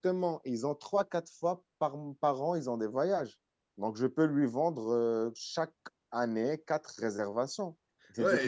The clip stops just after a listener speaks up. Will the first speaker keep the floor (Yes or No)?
No